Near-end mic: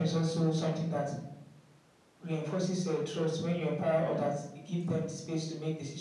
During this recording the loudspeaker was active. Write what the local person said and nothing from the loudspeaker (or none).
none